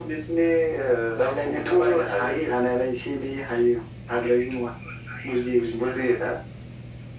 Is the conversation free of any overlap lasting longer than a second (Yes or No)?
No